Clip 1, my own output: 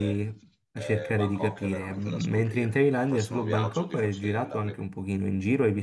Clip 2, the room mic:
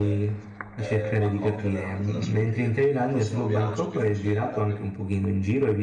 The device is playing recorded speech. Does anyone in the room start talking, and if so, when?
none

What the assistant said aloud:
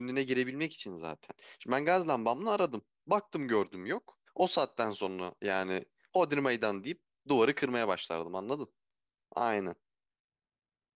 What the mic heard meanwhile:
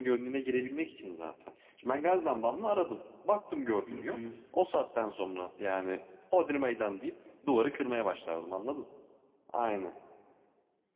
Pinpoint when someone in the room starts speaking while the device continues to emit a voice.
3.8 s

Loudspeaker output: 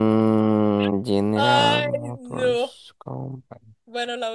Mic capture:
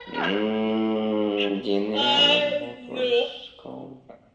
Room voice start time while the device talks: none

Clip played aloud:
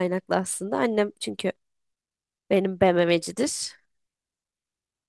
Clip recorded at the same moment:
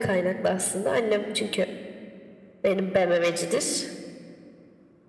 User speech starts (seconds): none

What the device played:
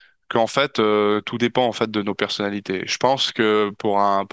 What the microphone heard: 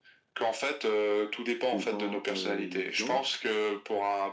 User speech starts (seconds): 1.7 s

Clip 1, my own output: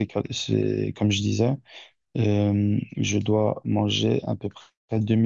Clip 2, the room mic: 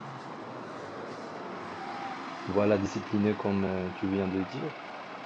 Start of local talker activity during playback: 2.5 s

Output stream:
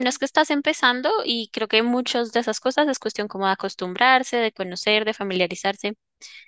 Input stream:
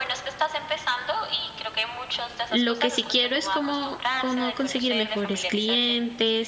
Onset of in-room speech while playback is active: 2.5 s

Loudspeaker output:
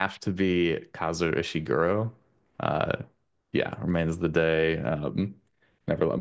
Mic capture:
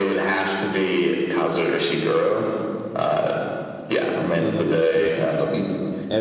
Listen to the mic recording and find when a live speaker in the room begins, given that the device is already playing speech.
4.4 s

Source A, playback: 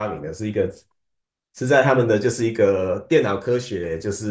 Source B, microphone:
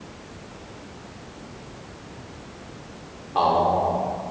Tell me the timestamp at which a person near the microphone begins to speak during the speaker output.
3.3 s

